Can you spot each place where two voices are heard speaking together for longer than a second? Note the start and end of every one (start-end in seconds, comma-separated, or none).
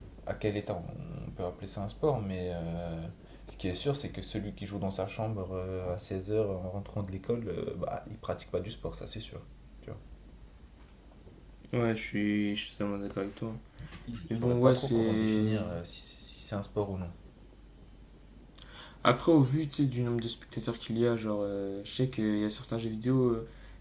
14.3-15.6